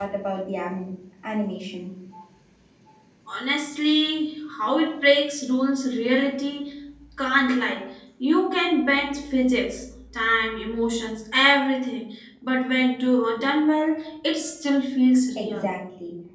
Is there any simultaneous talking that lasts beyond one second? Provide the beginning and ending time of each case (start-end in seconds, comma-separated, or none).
none